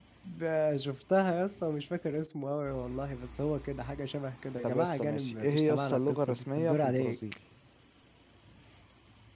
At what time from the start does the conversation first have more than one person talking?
4.6 s

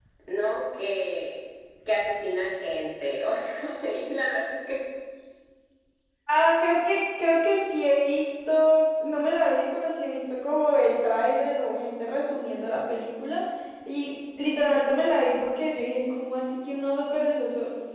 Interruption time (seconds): none

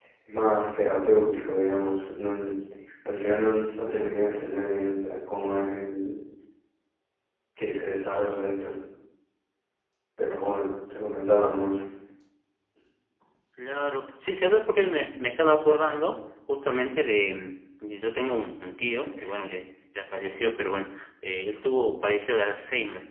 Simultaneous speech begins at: none

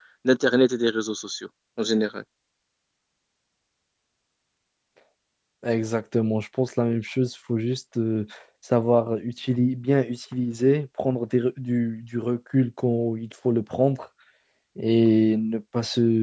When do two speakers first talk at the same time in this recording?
none

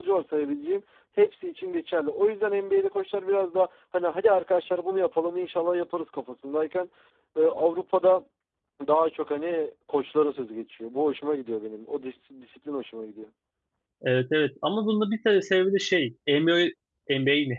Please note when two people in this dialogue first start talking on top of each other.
none

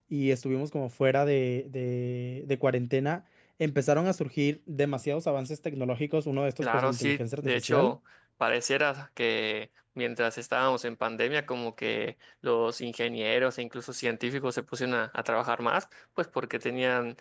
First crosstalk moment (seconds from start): 6.6 s

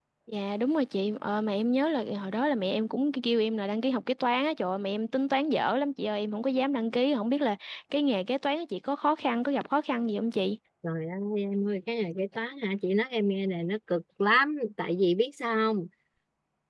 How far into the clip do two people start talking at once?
none

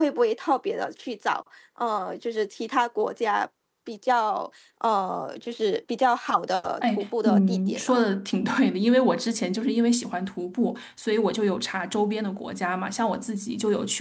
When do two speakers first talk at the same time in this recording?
6.8 s

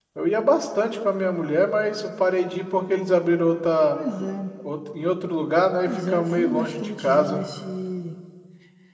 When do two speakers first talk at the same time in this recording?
5.8 s

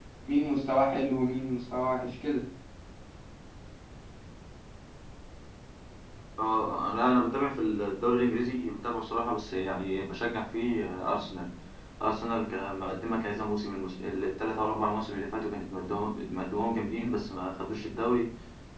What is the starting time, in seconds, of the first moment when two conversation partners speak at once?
none

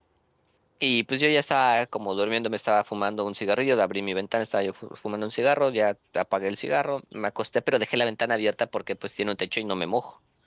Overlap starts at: none

